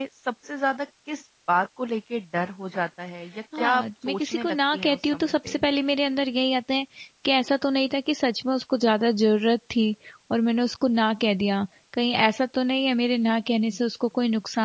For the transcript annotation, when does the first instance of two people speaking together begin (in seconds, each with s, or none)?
3.5 s